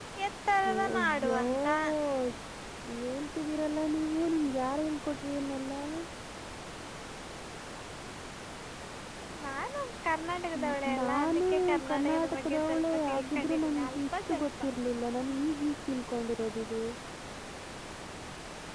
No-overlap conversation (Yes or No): No